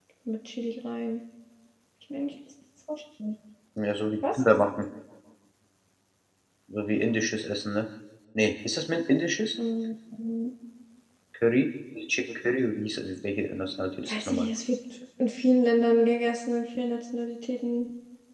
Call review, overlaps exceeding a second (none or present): none